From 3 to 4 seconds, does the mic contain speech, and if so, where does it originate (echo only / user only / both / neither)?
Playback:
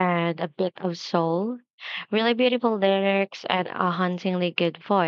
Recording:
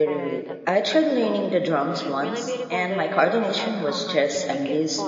both